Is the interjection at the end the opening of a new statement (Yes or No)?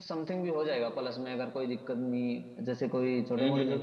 No